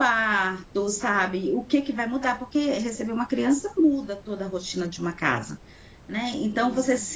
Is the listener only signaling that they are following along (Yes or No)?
Yes